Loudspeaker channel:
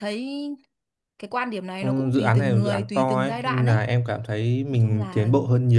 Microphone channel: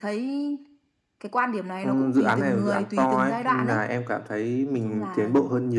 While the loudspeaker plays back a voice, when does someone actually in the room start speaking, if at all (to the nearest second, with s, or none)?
none